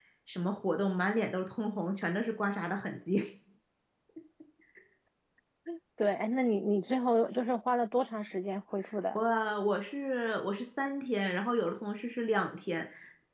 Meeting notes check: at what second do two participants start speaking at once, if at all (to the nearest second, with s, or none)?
none